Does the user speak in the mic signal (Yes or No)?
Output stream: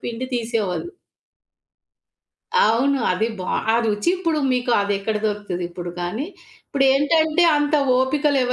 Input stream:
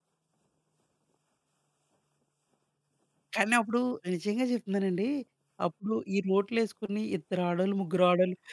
Yes